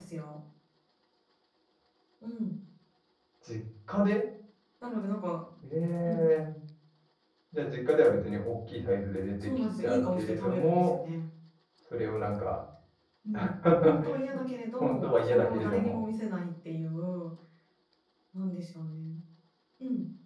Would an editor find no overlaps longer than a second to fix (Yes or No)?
No